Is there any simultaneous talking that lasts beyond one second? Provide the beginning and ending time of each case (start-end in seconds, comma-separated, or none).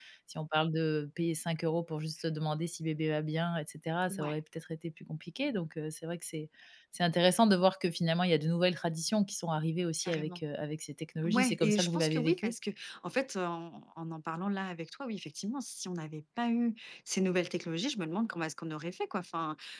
11.2-12.5